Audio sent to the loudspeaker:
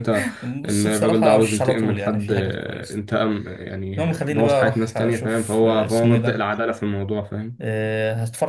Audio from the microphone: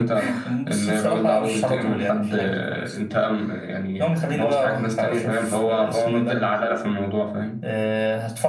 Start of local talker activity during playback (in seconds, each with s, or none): none